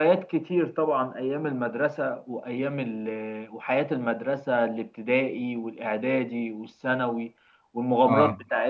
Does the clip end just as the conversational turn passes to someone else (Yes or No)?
No